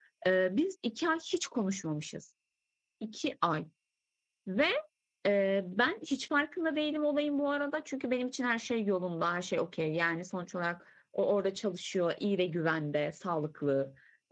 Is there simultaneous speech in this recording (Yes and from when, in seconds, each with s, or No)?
No